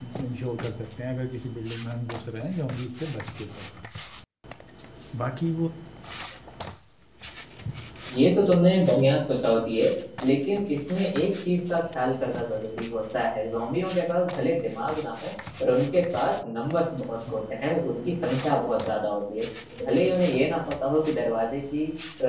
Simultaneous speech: No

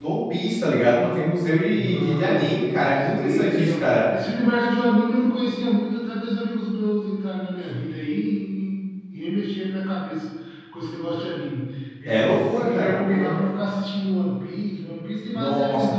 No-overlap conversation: No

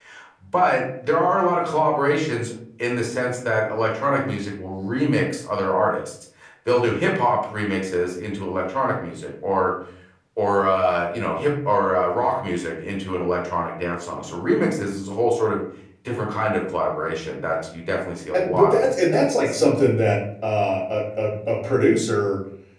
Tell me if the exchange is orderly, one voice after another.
No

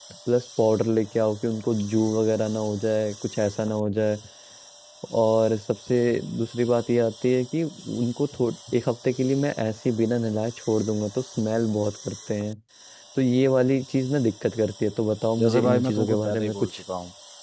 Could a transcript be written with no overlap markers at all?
No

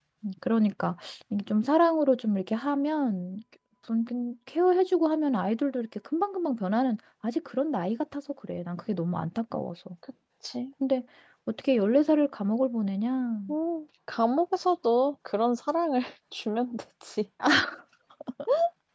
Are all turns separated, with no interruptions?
Yes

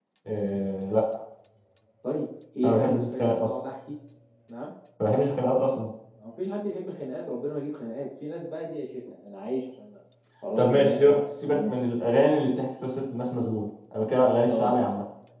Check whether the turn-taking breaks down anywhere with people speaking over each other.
Yes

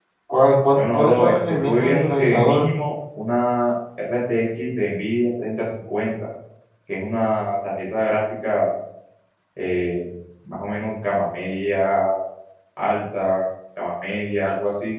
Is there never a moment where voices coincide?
No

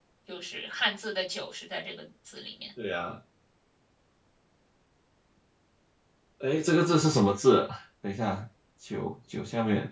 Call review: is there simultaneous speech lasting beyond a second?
No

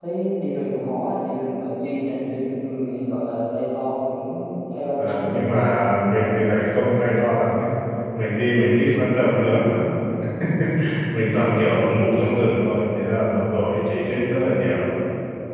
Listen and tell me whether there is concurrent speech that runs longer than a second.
No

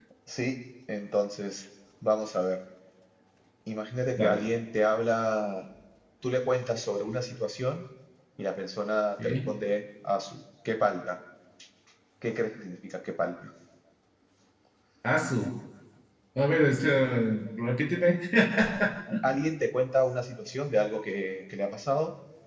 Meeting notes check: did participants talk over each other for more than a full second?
No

